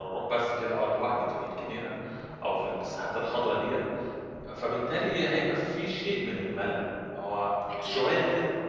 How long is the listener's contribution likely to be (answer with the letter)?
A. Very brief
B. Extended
A